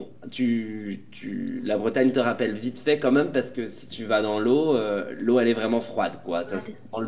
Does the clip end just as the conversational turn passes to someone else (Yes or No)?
No